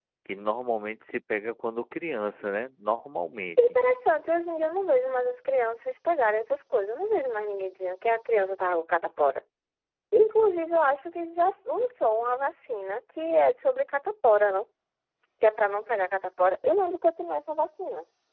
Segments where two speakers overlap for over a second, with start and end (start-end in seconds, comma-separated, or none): none